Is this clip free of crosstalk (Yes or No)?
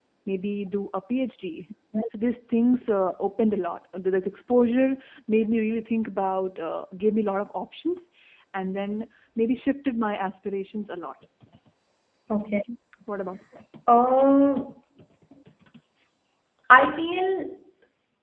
Yes